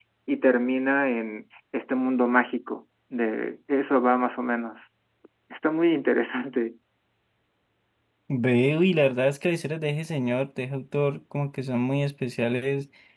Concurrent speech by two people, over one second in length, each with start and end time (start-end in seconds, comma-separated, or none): none